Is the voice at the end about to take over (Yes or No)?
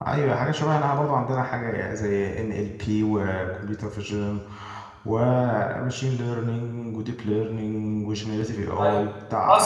Yes